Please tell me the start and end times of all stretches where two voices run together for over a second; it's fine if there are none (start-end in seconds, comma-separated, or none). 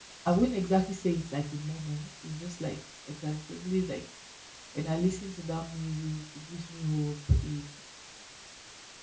none